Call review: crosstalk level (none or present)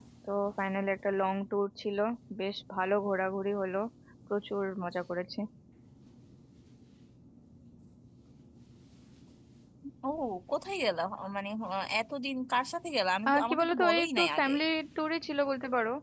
present